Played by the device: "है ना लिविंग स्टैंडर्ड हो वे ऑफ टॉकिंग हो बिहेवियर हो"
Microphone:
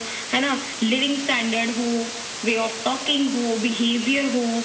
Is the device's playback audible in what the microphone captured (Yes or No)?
Yes